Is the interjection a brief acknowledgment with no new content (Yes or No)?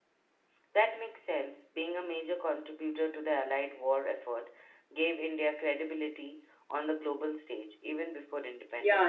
No